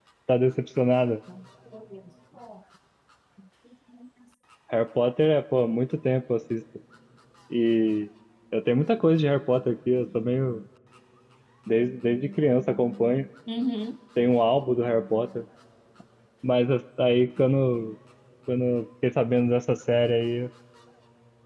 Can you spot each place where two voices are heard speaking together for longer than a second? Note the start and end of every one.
none

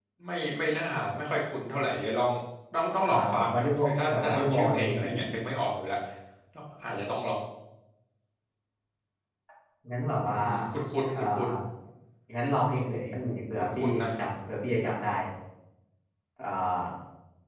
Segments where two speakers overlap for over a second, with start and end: 3.1-5.1

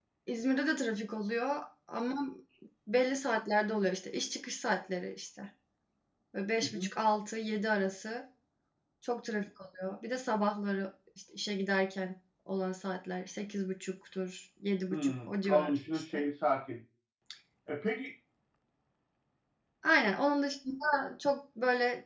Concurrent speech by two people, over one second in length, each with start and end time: 14.9-16.2

